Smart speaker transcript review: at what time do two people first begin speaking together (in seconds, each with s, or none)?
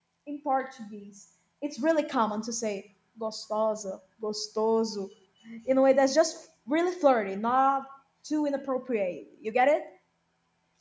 none